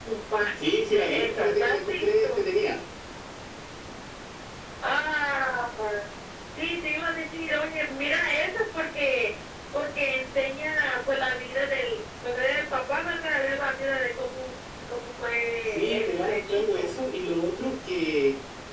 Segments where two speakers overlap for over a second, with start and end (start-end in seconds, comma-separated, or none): 0.6-2.4, 15.7-16.9